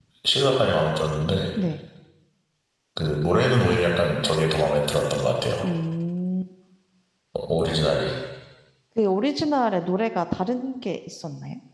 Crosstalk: none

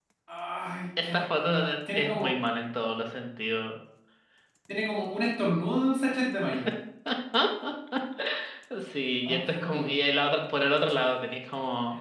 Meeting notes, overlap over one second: present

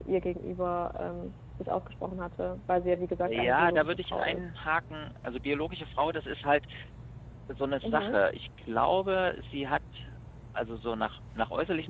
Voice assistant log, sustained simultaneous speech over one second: present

